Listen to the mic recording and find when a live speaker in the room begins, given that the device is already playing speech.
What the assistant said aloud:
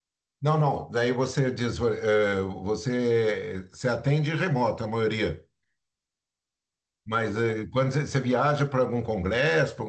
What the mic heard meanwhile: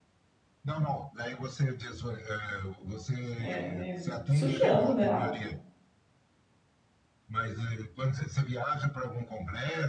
3.4 s

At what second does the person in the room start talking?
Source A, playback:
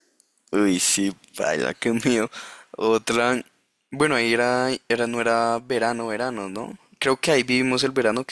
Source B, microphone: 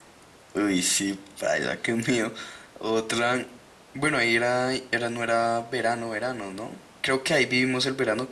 none

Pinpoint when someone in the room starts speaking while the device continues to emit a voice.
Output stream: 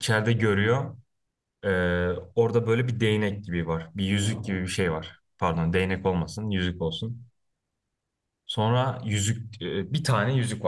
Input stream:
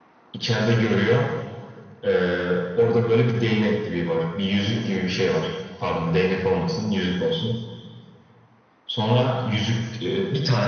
none

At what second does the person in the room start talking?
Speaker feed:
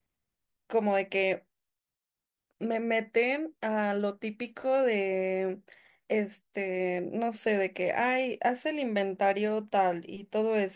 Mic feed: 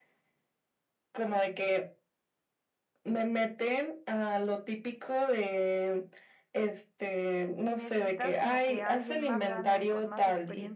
7.6 s

